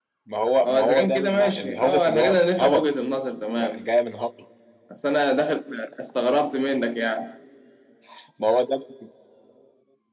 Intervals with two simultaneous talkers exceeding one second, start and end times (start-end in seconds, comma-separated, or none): 0.6-2.8